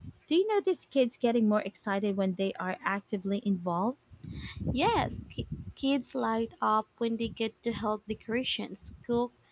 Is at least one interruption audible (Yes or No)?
No